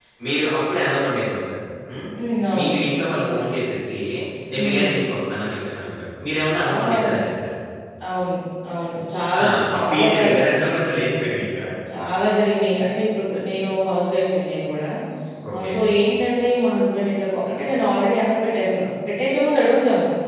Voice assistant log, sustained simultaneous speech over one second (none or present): present